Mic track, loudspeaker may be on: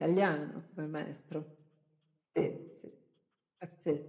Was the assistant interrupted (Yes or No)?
No